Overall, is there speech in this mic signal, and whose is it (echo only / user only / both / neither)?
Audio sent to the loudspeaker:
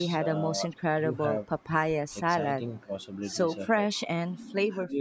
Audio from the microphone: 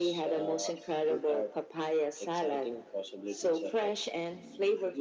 echo only